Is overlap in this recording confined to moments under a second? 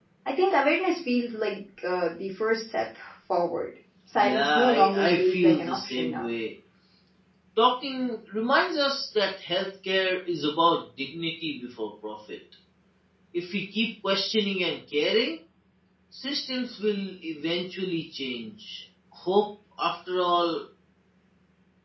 No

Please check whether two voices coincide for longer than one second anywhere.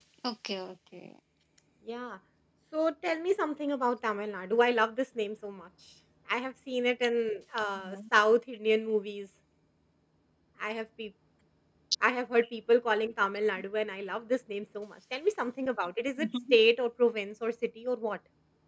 No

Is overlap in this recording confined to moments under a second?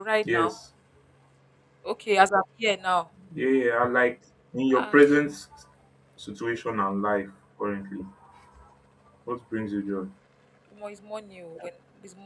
Yes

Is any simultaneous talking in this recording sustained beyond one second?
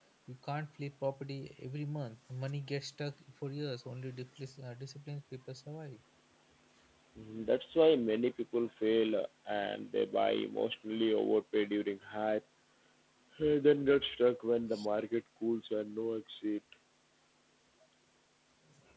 No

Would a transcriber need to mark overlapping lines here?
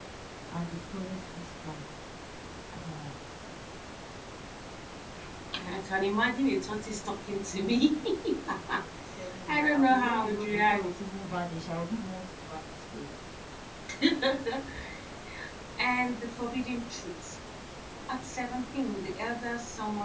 Yes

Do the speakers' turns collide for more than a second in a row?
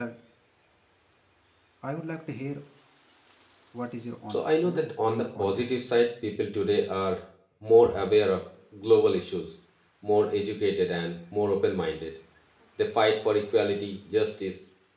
Yes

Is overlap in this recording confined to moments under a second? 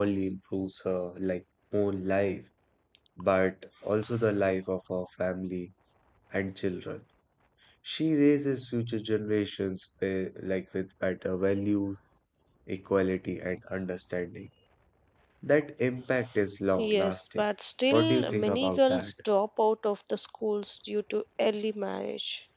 No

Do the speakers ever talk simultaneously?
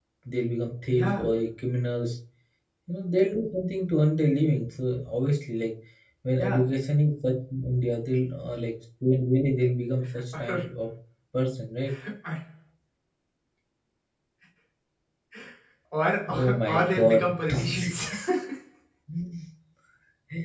Yes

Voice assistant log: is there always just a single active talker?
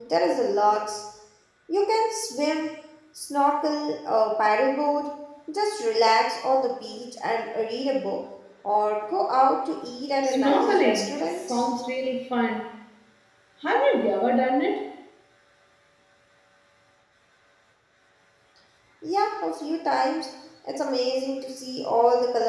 No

